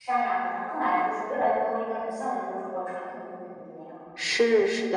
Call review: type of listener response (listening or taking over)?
taking over